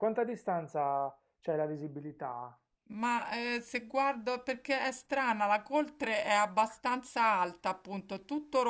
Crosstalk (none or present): none